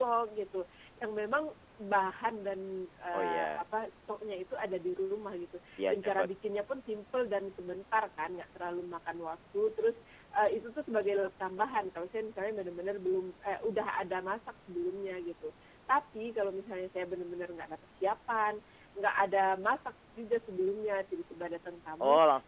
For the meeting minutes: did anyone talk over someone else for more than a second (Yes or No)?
No